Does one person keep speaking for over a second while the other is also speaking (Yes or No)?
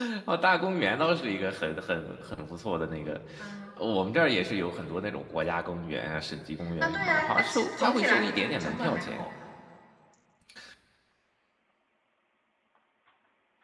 Yes